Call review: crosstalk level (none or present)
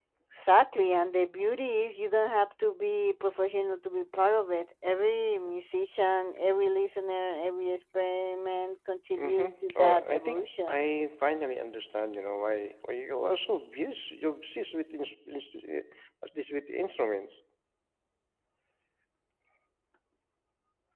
present